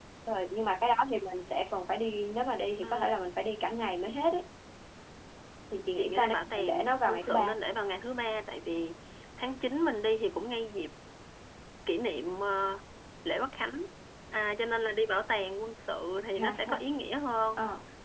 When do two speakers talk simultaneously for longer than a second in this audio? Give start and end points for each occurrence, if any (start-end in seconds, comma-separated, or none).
6.0-7.5